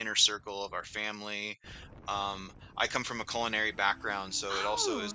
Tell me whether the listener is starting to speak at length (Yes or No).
No